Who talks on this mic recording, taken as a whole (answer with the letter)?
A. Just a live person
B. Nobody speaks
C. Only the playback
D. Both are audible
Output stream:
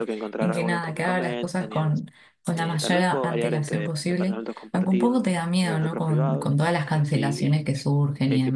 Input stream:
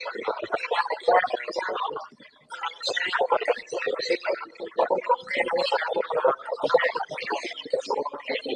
C